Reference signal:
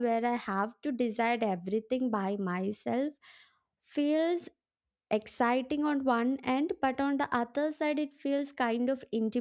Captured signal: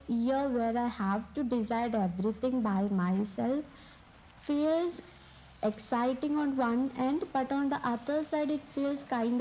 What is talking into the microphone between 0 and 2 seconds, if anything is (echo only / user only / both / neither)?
echo only